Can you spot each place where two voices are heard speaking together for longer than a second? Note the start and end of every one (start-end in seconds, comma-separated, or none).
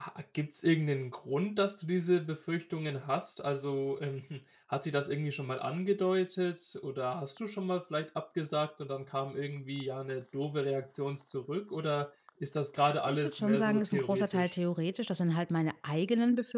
13.1-14.6